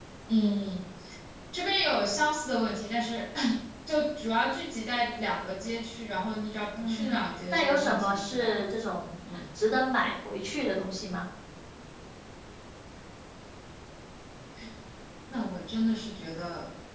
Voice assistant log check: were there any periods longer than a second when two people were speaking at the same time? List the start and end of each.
6.7-8.6

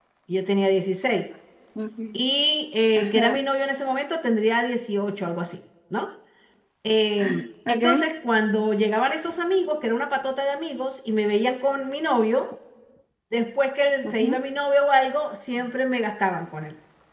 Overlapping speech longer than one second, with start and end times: none

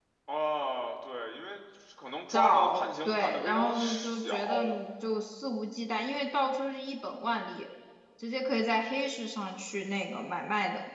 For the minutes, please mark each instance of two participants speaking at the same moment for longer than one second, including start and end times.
2.3-4.6

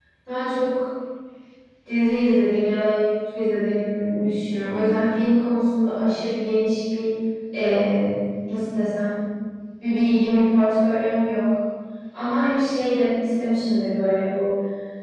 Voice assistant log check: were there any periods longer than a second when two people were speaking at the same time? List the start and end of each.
none

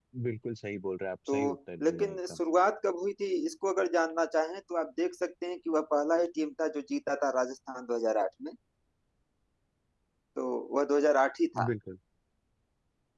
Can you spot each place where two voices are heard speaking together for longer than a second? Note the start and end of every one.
none

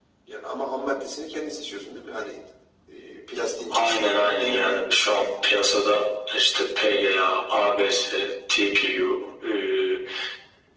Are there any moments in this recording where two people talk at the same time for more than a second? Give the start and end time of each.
3.7-5.1

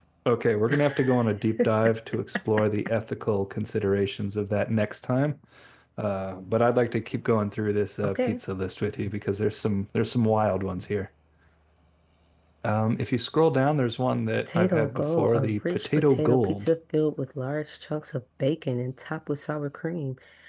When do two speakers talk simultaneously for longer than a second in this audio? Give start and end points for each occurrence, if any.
14.5-16.7

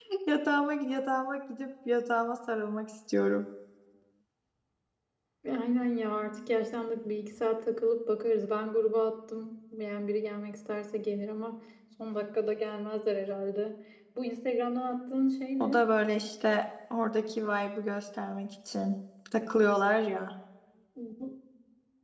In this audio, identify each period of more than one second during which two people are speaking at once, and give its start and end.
none

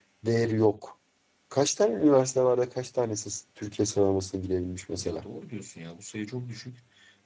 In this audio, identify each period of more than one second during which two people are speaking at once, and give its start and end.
none

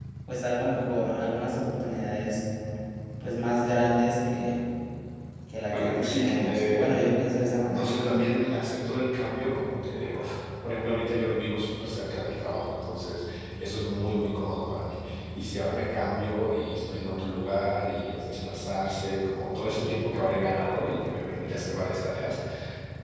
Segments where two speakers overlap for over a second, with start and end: 5.7-7.0

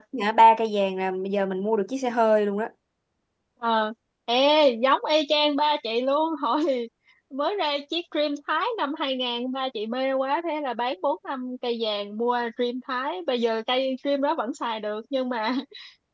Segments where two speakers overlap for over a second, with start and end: none

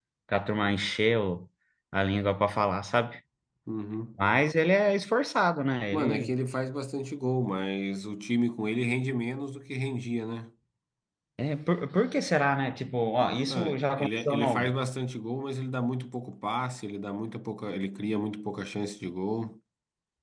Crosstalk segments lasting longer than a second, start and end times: 13.4-14.7

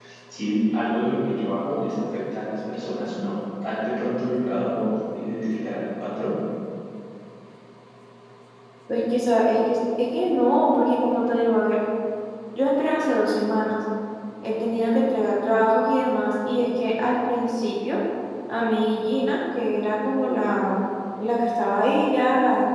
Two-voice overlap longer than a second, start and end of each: none

